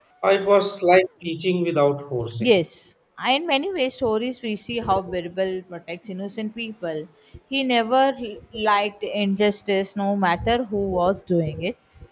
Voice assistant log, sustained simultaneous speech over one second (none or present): none